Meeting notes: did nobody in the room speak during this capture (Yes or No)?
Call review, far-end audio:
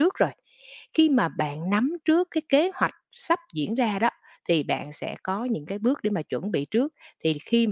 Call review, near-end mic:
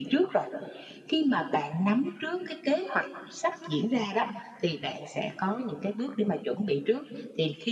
Yes